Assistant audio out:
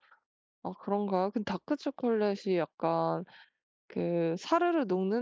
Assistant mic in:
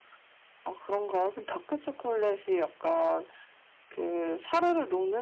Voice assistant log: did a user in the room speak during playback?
No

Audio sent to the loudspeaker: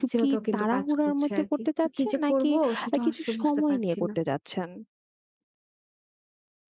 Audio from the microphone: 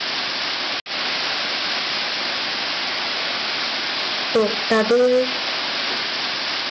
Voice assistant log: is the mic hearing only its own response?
No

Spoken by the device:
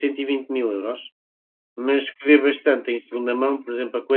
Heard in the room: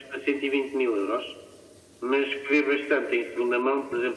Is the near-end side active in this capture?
No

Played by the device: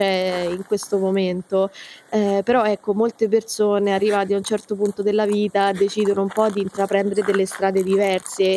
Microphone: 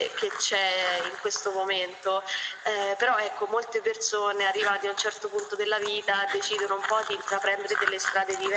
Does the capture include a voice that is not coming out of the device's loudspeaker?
No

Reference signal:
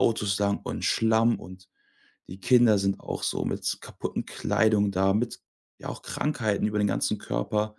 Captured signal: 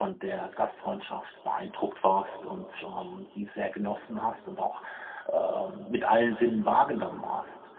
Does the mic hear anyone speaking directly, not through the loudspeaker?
Yes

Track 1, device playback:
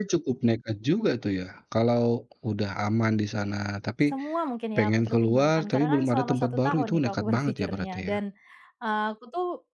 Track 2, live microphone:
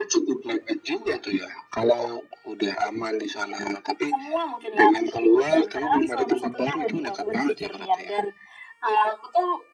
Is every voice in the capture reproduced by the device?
Yes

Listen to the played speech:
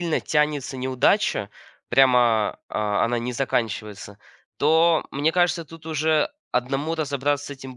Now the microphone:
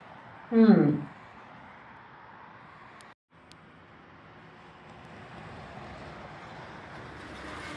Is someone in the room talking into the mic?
Yes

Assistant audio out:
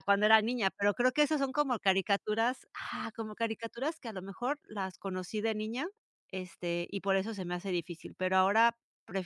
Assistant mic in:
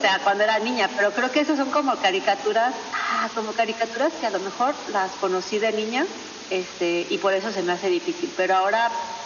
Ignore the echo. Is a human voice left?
No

